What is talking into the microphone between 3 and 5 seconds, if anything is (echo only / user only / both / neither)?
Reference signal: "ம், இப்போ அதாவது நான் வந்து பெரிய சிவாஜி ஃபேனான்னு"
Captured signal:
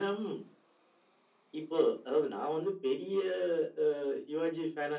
echo only